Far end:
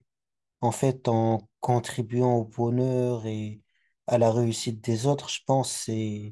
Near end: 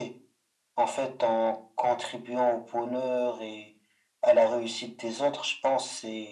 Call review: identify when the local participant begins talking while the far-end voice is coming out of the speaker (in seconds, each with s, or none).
none